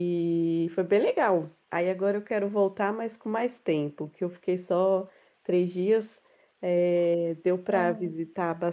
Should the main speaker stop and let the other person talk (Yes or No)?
No